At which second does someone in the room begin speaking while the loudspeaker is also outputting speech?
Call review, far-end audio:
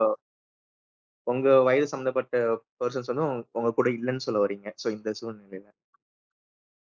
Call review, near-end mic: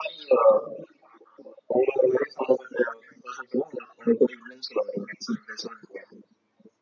none

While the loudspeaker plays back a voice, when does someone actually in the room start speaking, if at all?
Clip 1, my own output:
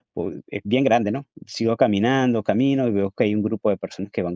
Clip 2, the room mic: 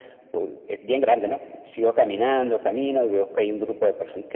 none

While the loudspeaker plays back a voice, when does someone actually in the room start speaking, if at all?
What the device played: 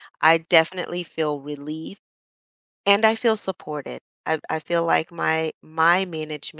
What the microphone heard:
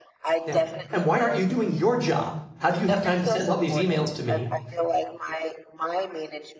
0 s

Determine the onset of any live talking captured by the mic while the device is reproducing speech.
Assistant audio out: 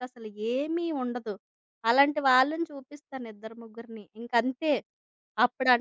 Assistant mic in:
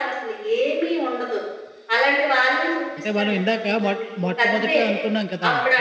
3 s

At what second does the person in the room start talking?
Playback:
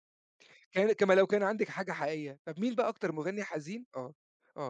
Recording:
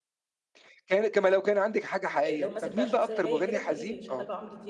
2 s

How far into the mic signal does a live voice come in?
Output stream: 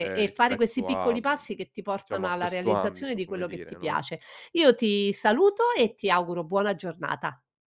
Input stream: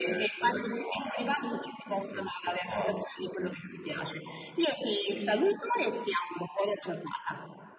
none

